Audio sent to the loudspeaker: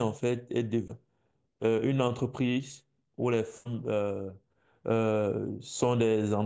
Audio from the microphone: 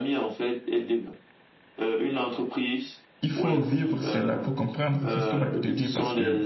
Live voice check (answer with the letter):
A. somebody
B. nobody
A